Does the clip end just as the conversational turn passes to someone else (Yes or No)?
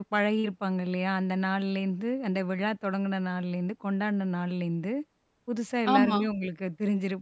No